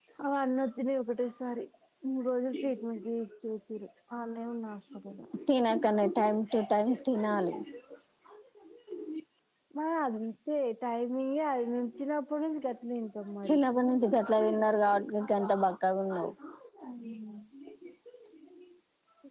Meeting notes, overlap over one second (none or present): none